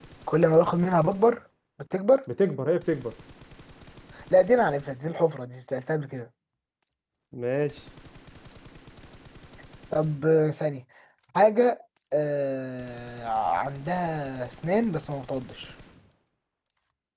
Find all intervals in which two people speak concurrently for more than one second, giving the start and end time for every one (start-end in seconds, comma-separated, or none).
none